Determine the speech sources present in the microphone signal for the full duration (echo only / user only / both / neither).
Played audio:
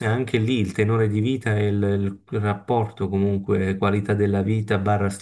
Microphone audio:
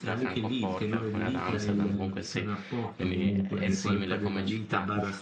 both